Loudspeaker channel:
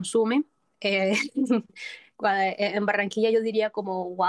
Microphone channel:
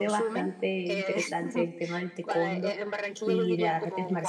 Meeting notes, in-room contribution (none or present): present